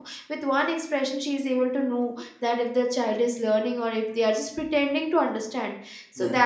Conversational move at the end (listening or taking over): listening